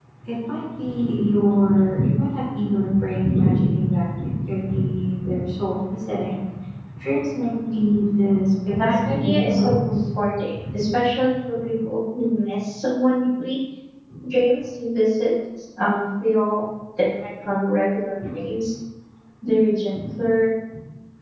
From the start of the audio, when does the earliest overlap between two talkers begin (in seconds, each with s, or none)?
8.7 s